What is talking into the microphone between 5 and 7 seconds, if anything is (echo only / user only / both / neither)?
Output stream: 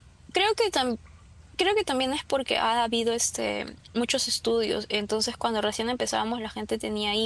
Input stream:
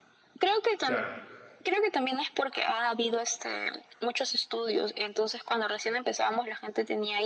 echo only